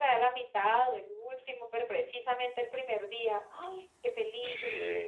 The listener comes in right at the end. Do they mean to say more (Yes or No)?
Yes